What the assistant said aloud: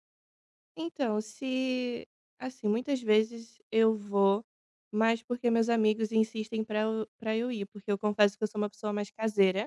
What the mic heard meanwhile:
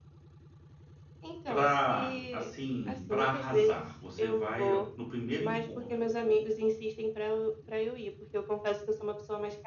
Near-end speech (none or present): present